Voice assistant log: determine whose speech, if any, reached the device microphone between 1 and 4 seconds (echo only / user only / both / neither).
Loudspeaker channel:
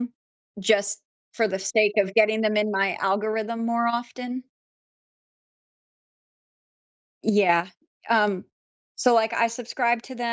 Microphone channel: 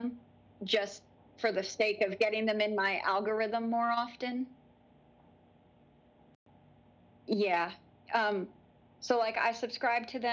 echo only